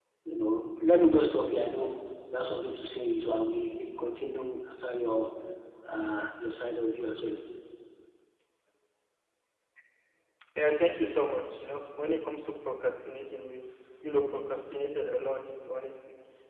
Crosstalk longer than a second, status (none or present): none